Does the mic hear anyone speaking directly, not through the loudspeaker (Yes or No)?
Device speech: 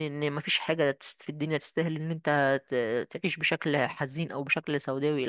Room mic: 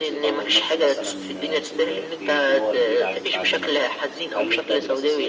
Yes